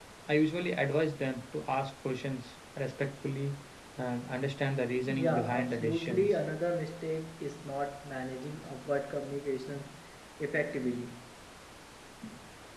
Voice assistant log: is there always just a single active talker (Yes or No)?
No